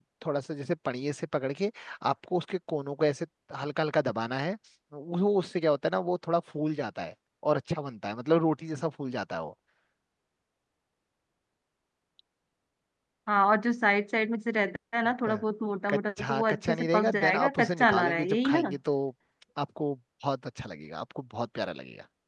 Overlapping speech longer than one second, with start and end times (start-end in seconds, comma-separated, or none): 15.9-18.8